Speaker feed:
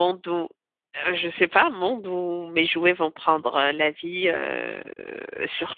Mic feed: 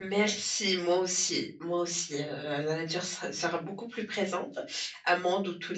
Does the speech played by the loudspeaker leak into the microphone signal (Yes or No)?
No